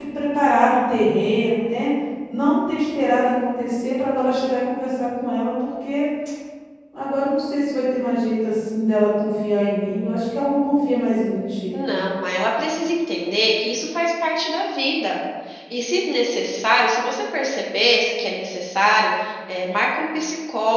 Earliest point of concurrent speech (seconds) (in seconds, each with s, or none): none